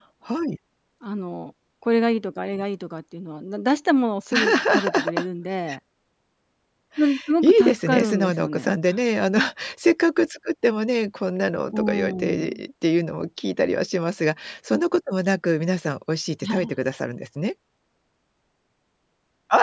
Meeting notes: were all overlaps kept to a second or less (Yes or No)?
No